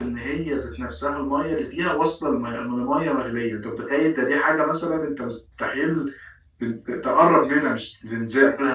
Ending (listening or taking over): taking over